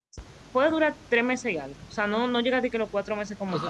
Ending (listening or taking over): taking over